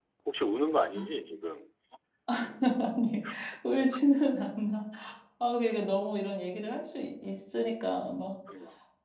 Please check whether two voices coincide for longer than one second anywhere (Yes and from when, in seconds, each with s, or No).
No